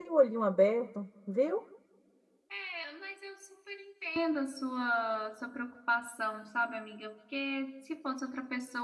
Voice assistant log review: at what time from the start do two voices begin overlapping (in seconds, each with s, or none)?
none